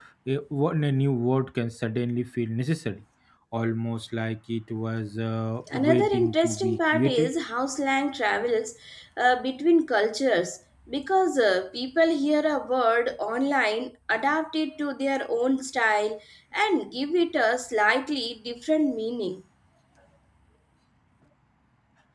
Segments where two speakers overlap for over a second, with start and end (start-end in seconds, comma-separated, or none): 5.7-7.3